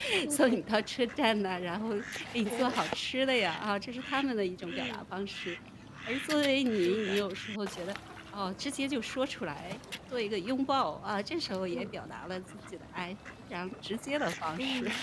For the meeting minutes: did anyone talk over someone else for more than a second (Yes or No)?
No